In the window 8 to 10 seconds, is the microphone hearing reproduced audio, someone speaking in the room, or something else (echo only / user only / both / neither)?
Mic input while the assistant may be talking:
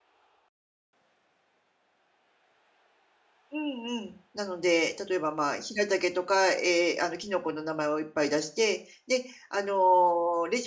user only